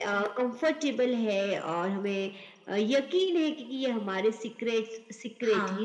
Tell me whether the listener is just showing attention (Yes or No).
Yes